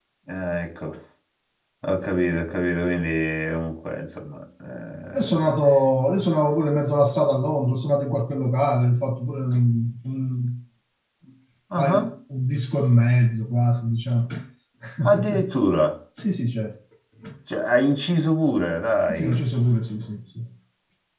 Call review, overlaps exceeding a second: none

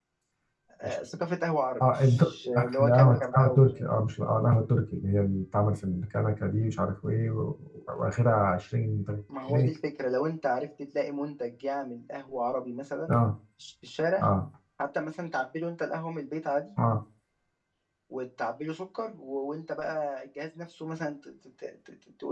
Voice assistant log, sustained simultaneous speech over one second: present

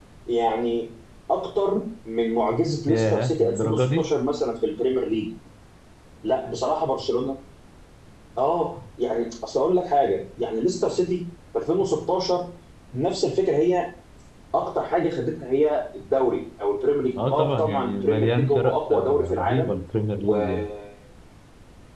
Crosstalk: present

